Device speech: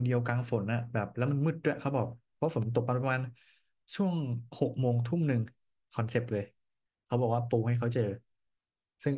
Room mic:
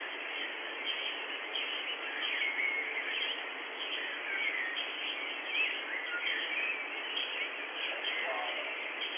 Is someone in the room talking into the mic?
No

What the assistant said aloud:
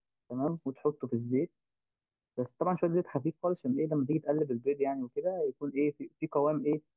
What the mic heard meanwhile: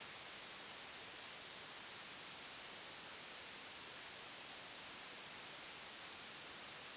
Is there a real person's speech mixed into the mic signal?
No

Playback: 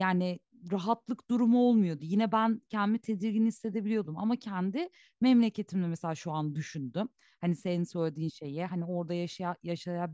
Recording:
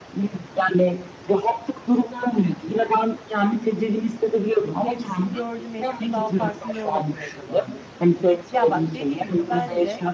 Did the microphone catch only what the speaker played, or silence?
No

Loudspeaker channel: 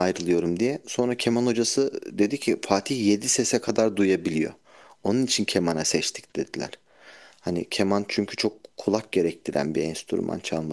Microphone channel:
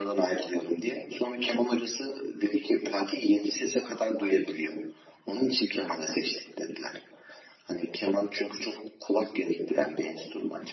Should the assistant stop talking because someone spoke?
No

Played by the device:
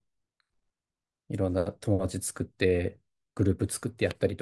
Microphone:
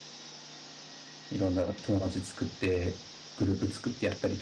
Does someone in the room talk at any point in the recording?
No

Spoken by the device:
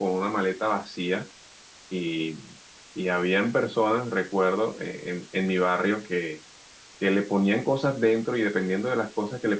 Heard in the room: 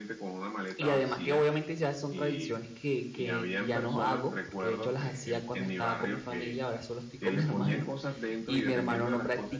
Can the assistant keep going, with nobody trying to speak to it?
No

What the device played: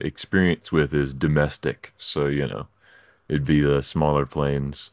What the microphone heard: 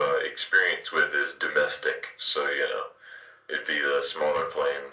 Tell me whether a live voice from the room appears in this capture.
No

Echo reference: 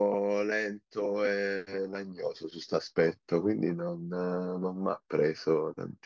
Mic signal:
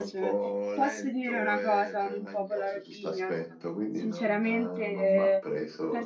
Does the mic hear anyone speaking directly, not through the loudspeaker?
Yes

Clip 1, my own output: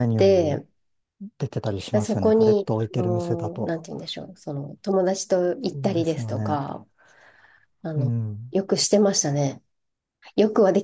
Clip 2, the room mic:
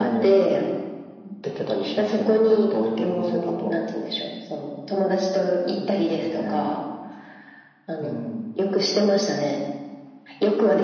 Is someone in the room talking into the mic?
No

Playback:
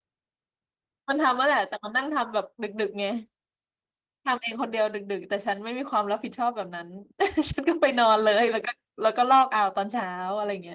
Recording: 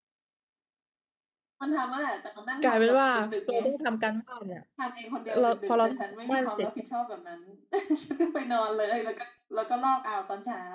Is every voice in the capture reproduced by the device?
No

